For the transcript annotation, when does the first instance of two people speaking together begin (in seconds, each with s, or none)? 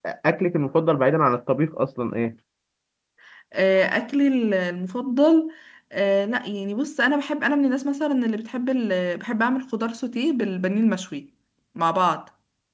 none